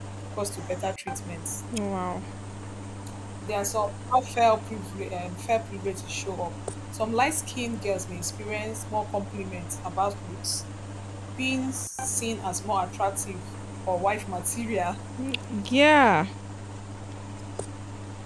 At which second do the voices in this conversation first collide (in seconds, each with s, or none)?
none